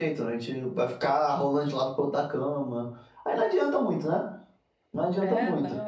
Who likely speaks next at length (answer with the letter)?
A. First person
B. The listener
B